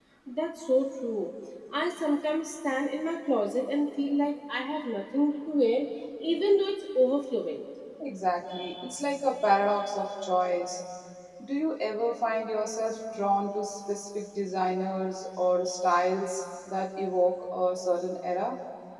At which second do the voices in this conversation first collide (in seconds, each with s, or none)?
none